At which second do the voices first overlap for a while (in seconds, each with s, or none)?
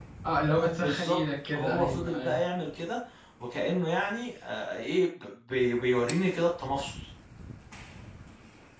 0.8 s